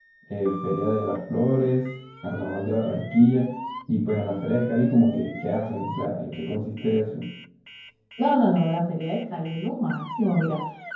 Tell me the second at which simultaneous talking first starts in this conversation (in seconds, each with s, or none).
none